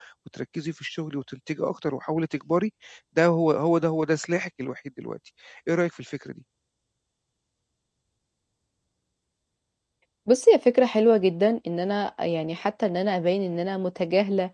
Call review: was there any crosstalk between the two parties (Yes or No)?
No